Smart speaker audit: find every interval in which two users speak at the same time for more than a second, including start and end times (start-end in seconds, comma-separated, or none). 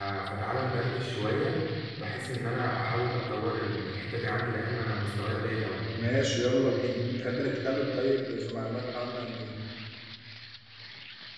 none